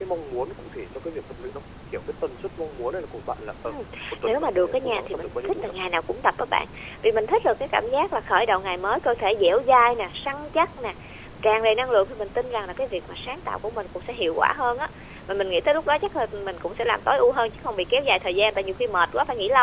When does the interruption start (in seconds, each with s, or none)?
4.2 s